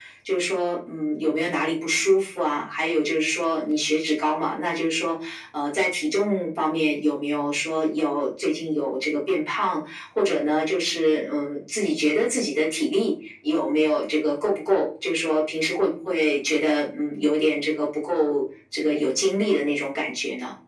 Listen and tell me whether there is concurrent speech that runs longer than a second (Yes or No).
No